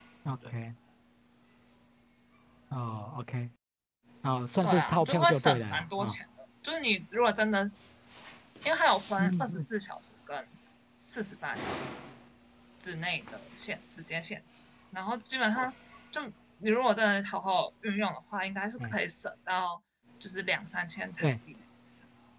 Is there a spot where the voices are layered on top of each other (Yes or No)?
Yes